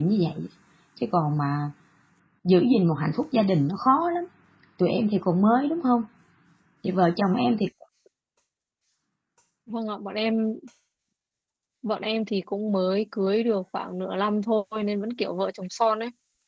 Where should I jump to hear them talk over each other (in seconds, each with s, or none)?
none